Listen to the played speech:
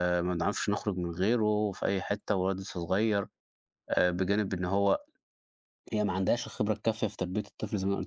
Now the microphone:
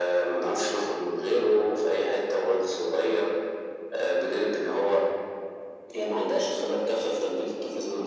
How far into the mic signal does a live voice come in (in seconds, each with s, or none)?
none